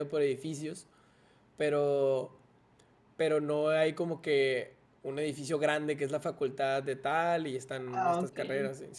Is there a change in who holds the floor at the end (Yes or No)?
No